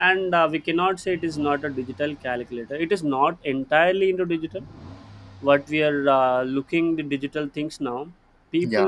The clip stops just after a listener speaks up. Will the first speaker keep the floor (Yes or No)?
Yes